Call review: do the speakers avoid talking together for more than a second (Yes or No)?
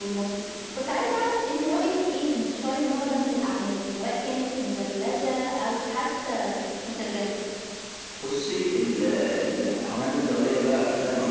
Yes